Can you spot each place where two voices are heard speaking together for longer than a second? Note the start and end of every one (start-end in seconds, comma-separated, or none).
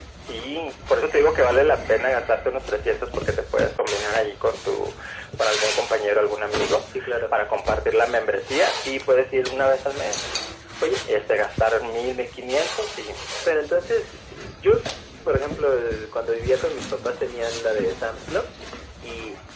none